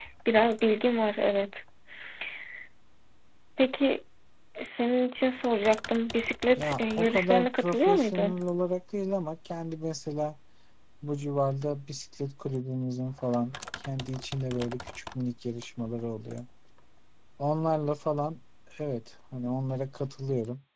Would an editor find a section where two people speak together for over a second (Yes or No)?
Yes